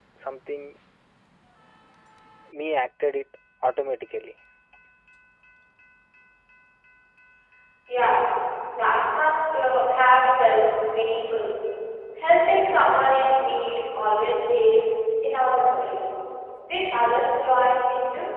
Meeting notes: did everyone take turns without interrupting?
Yes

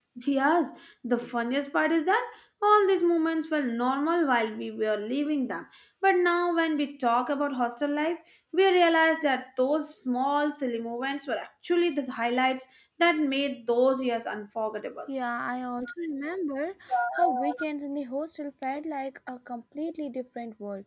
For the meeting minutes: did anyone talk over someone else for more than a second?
No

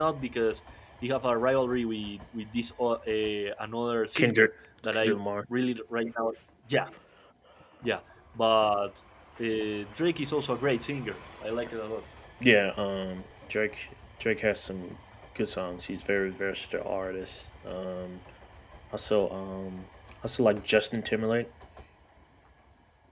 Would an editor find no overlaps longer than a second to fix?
Yes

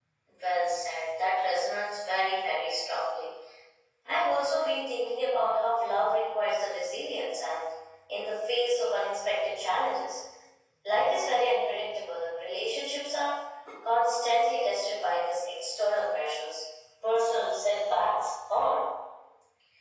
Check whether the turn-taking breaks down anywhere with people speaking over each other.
No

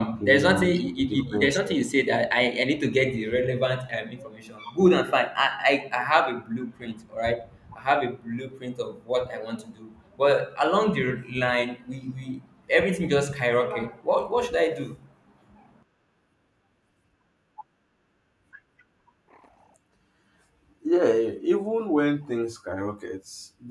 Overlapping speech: Yes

